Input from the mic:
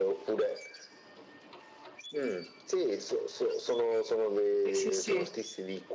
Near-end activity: present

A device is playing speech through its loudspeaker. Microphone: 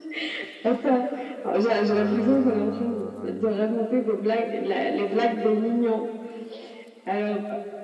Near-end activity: present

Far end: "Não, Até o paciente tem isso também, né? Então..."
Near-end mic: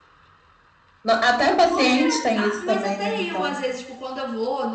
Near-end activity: present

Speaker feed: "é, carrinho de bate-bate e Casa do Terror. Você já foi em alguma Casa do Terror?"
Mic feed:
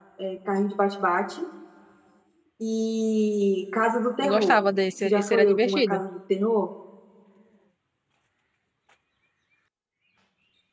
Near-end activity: present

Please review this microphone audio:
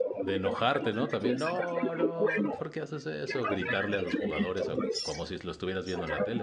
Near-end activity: present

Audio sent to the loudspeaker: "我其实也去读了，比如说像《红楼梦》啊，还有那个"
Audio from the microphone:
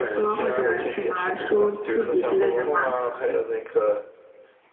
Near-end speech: present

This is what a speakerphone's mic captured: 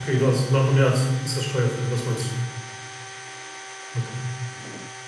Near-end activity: present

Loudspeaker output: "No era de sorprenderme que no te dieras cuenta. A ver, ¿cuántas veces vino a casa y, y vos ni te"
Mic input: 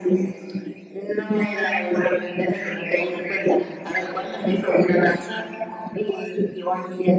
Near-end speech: none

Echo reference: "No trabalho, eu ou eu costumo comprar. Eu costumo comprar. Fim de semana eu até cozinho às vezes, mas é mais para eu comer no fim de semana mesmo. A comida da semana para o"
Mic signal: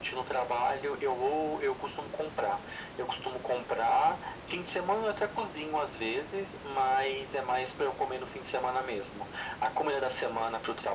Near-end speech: none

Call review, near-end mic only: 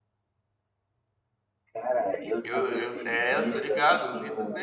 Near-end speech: present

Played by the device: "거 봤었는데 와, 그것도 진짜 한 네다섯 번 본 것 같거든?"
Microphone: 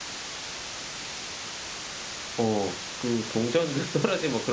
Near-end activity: present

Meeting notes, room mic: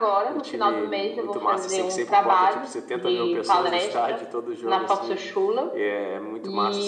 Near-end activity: none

